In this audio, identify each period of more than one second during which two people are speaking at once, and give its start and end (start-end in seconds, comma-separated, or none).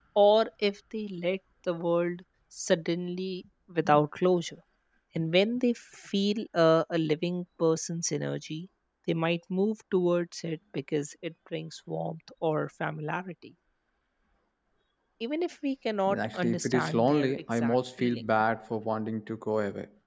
16.1-18.2